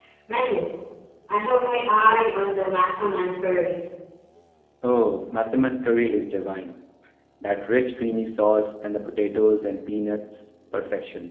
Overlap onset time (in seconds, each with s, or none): none